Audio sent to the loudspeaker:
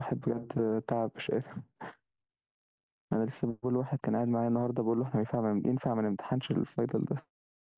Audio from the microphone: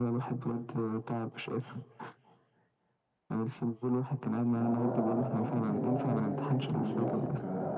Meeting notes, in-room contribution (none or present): present